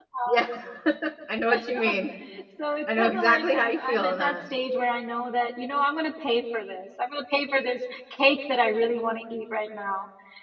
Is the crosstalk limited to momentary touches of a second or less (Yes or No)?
No